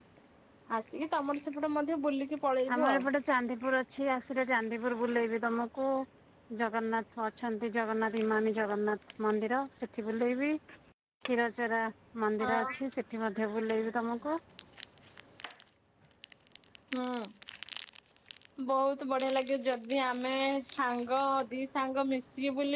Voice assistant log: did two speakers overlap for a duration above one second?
No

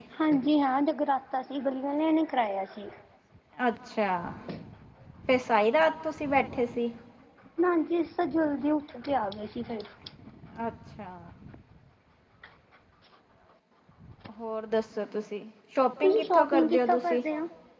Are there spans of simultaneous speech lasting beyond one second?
Yes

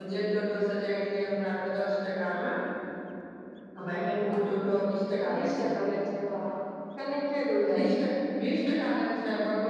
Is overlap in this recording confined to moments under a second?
Yes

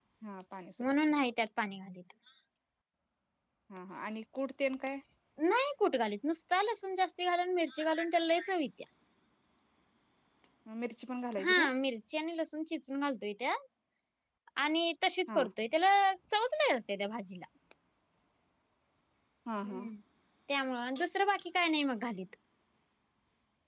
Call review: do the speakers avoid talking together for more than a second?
Yes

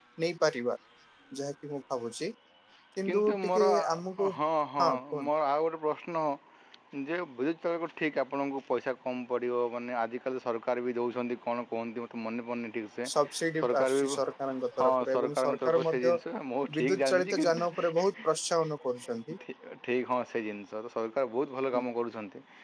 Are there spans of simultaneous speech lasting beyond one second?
Yes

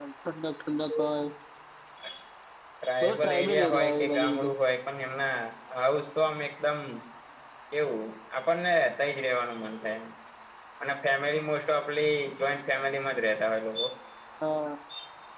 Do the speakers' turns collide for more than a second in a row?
Yes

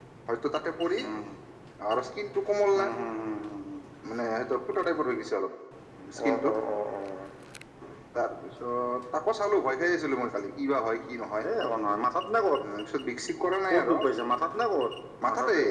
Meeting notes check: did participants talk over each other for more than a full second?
No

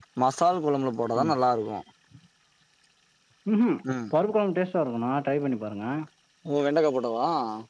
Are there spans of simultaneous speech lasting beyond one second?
No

